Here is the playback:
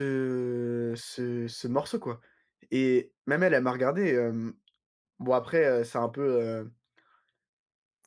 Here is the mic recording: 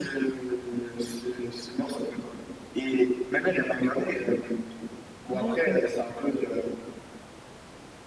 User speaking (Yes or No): Yes